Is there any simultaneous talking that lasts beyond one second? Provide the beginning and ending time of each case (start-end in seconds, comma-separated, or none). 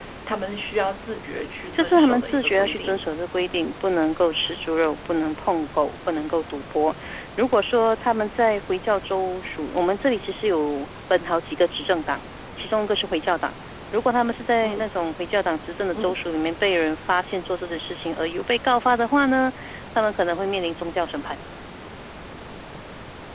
1.7-3.0